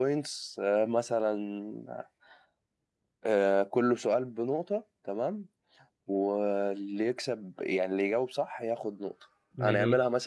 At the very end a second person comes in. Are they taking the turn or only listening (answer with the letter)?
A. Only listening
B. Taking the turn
A